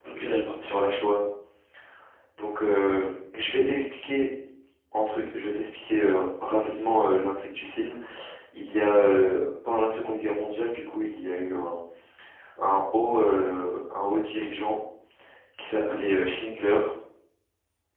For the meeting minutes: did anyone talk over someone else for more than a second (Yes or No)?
No